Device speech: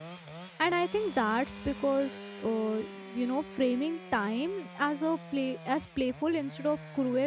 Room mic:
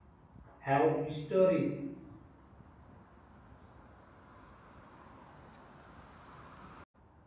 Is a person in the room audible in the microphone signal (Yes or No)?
Yes